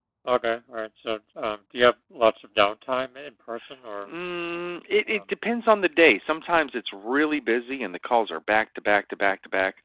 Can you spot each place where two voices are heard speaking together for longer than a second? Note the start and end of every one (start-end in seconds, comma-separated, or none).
none